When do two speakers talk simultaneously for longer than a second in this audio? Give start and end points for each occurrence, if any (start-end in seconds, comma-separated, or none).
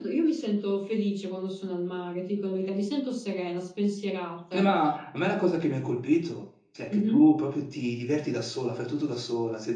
none